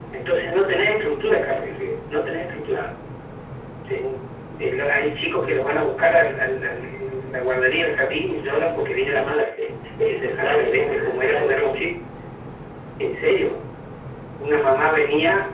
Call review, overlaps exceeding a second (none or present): present